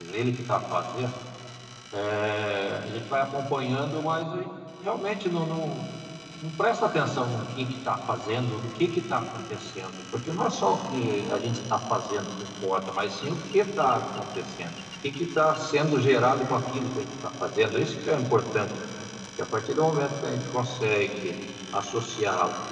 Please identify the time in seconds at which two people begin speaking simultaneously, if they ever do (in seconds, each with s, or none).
none